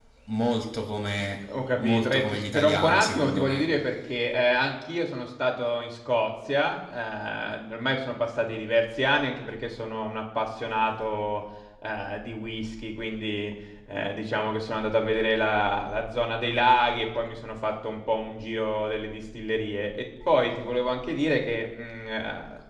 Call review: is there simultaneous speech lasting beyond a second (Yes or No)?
Yes